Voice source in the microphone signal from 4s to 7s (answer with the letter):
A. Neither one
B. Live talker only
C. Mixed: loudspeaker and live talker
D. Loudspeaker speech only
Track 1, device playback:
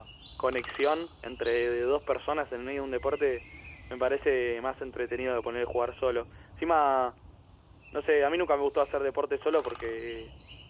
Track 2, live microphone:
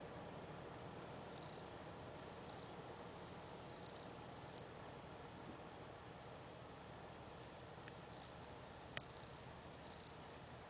A